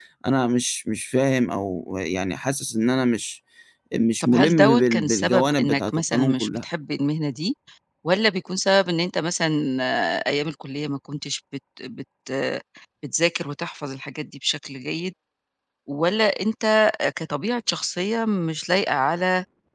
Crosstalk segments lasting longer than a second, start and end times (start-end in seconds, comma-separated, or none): 4.2-6.6